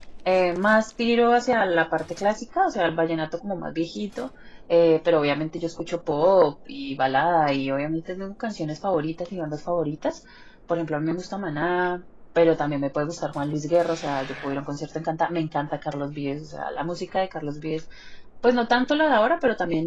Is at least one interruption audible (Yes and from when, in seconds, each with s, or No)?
No